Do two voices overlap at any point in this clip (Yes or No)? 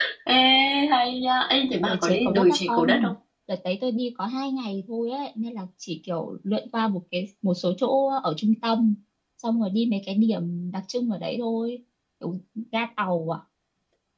Yes